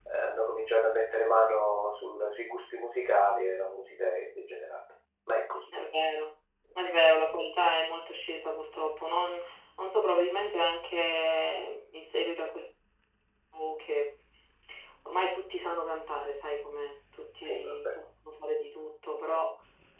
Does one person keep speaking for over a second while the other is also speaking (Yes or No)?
No